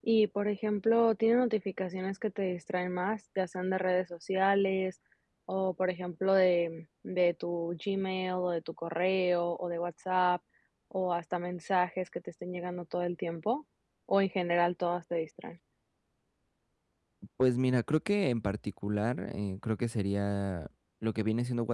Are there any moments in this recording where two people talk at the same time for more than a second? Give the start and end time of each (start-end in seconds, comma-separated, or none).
none